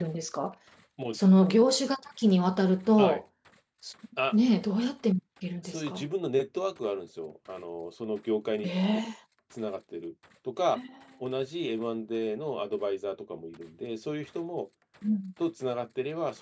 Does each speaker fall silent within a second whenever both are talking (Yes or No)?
Yes